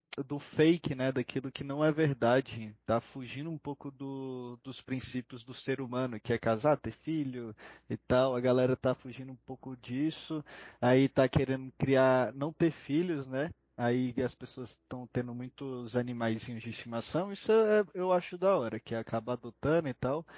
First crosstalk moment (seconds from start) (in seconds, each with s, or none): none